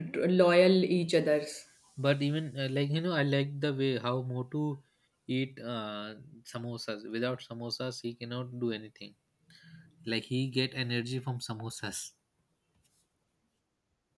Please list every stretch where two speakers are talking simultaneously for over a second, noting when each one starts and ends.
none

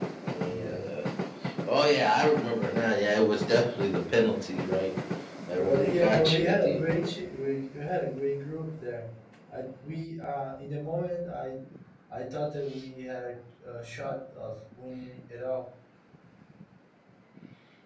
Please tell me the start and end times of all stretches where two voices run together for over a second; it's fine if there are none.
5.6-6.8

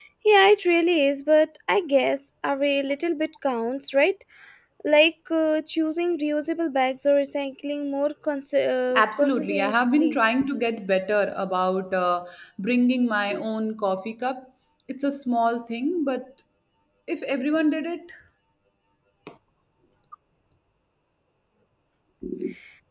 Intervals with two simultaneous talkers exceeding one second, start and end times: 9.0-10.2

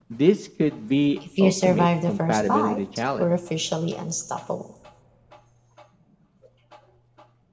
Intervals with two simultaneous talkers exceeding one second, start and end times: 1.4-3.3

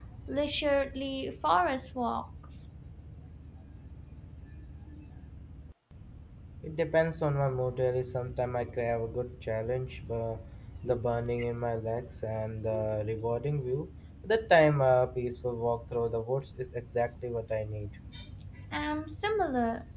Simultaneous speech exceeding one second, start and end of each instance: none

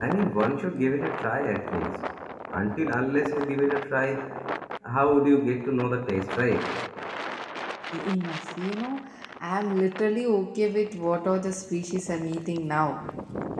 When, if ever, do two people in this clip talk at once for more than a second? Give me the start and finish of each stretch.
none

